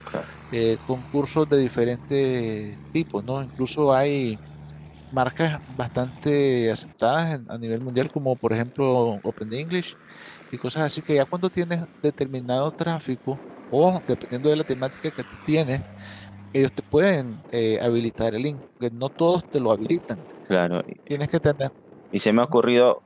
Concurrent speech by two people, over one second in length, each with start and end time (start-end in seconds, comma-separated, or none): none